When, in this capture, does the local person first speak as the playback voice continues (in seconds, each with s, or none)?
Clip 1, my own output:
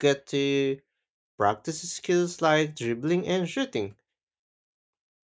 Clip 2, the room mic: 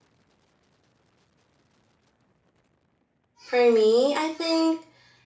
3.5 s